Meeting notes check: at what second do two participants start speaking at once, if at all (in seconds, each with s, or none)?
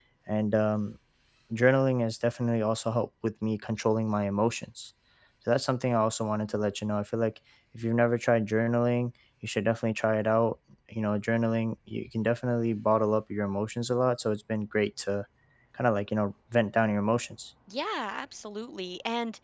none